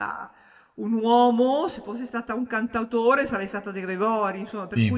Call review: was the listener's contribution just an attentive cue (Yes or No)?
Yes